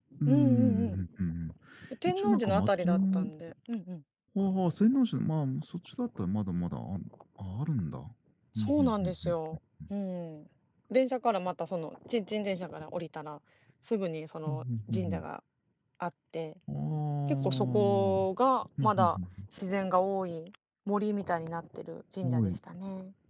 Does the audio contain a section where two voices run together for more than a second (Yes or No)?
Yes